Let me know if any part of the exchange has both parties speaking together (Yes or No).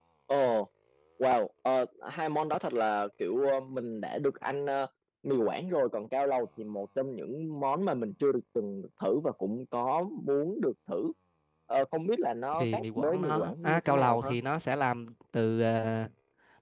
Yes